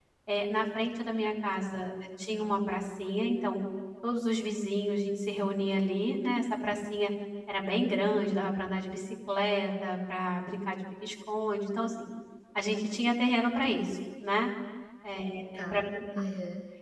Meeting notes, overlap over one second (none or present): none